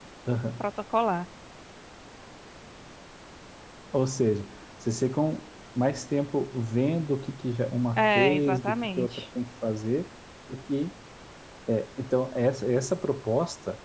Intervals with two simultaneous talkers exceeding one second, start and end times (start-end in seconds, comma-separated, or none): 8.0-9.2